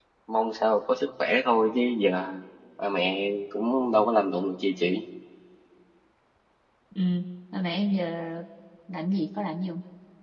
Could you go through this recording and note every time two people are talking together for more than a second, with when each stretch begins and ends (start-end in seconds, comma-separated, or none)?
none